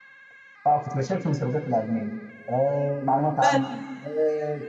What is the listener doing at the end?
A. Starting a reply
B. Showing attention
B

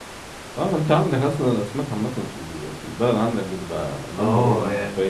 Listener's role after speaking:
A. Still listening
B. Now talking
B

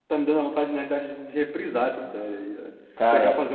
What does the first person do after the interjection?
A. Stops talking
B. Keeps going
B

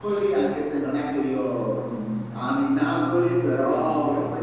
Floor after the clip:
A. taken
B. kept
B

